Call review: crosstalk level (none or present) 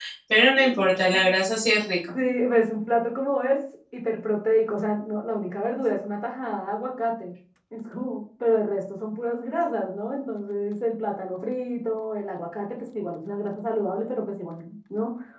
none